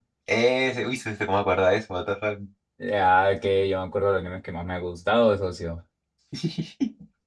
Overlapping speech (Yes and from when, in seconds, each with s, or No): No